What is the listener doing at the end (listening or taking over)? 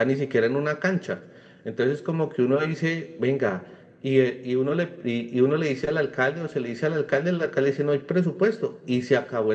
listening